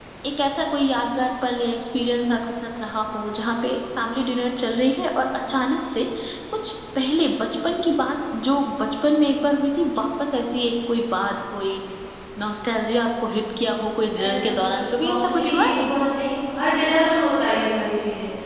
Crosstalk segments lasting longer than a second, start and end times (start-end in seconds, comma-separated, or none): 14.2-15.9